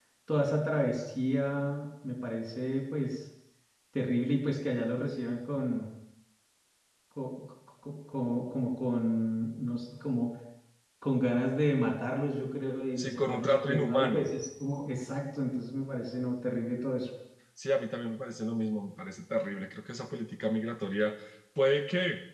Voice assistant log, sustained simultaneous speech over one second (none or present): present